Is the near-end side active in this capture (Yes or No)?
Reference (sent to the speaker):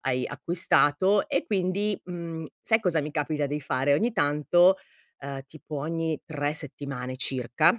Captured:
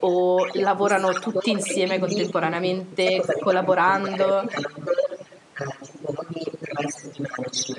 Yes